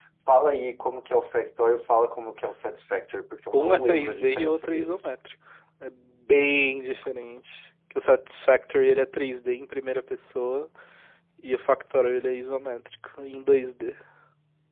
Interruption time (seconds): 3.5 s

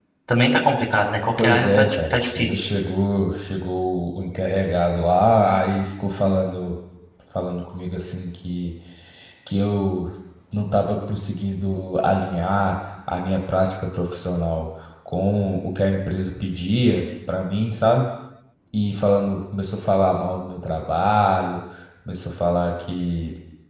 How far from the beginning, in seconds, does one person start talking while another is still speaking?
1.4 s

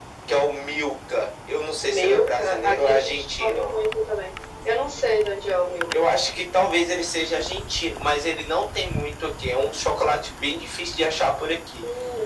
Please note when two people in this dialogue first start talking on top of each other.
1.8 s

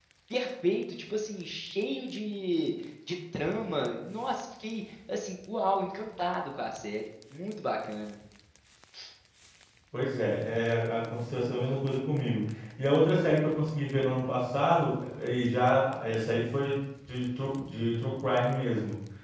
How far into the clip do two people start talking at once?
none

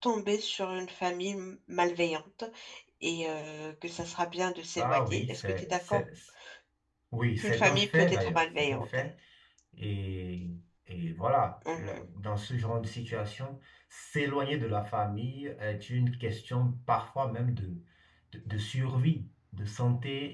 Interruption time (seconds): 4.8 s

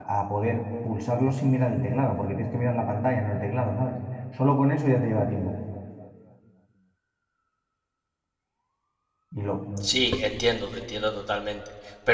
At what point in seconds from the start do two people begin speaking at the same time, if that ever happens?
none

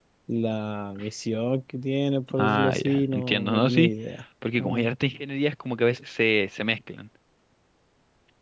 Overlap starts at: 2.4 s

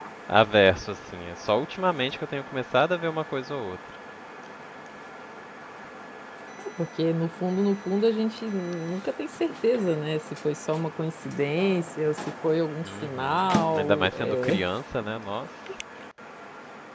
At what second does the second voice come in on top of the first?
12.8 s

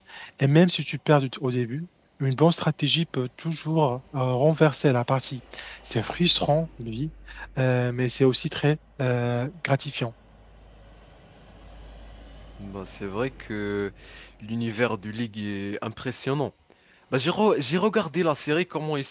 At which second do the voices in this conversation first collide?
none

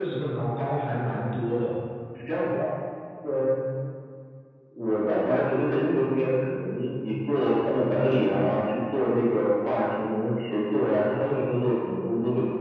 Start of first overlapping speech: none

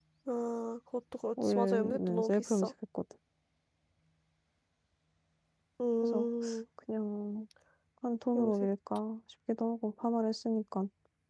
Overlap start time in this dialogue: 1.4 s

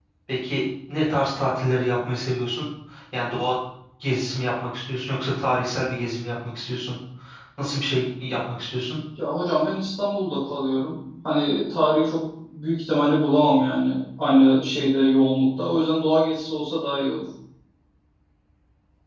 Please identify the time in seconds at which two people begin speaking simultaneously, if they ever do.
none

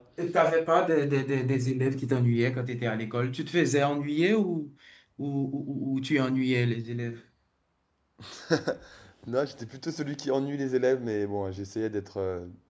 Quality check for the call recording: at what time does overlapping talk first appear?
none

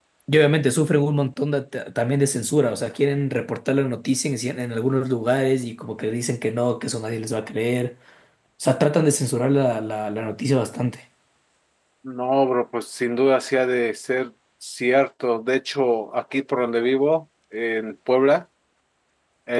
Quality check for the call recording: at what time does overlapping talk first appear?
none

